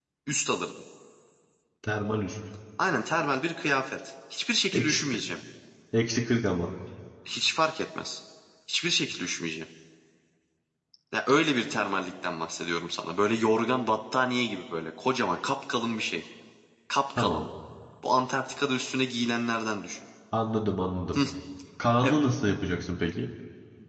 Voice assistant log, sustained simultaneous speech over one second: none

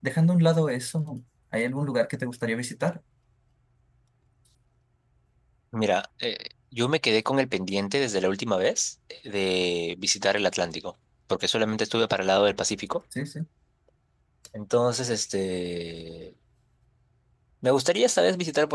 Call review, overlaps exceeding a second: none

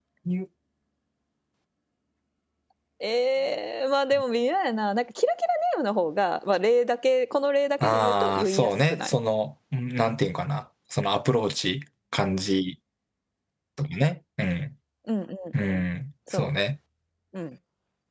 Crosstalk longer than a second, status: present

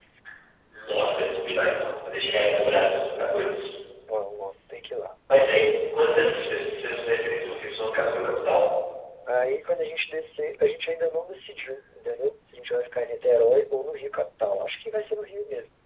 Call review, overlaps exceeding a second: none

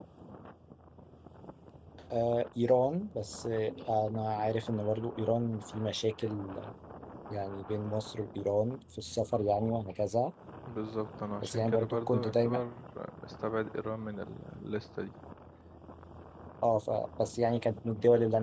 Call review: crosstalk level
present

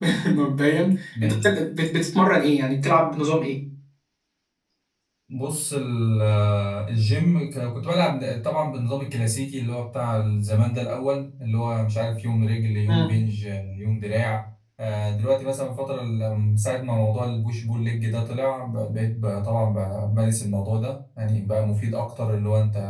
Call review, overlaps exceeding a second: none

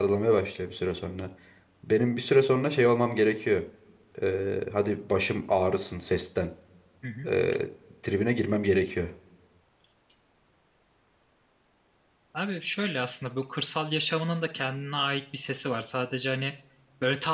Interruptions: none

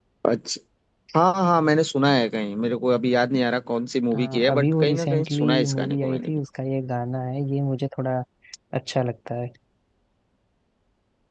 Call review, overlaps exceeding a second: present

